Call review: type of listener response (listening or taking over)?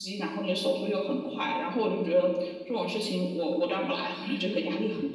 taking over